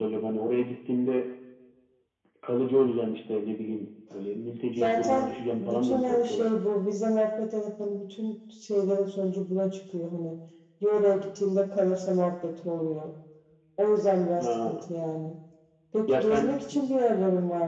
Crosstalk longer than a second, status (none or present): present